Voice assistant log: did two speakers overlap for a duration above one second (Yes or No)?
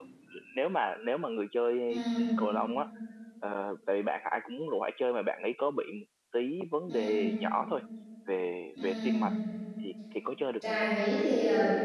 No